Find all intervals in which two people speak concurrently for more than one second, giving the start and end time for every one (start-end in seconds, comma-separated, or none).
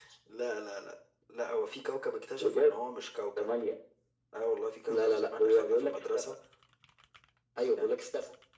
4.9-6.3